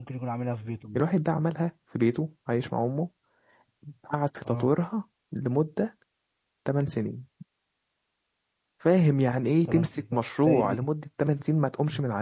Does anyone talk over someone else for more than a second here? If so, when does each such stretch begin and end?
9.7-10.9

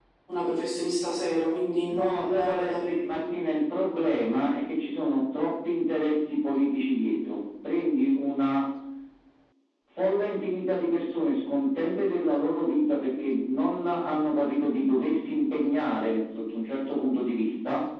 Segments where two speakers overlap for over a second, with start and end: 1.9-3.2

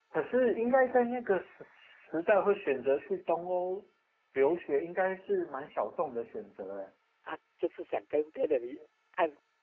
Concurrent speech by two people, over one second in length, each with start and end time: none

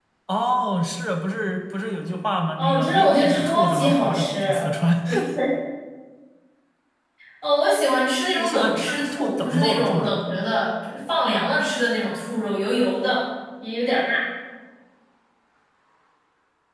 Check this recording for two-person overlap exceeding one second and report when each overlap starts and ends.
2.6-4.5, 8.2-10.1

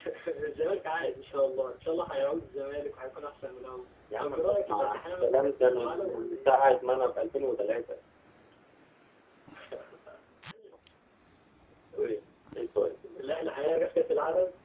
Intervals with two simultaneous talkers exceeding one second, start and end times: 4.2-6.5

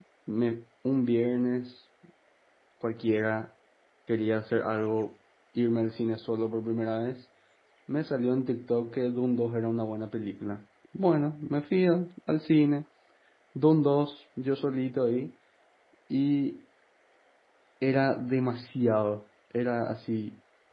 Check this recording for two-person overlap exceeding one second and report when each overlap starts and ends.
none

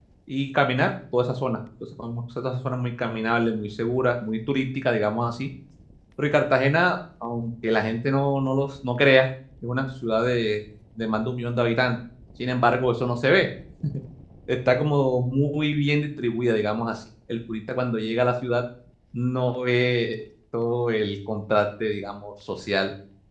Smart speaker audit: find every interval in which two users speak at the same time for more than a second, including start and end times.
none

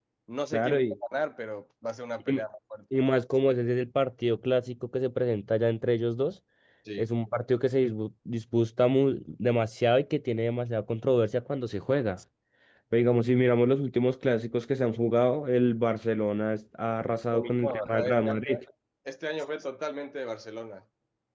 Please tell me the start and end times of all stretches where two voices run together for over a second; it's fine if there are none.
17.3-18.6

